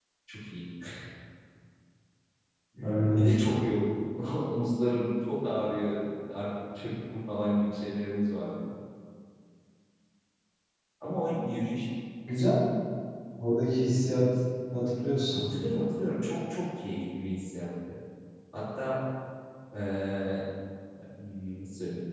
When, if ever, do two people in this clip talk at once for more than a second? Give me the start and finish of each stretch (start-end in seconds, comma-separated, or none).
none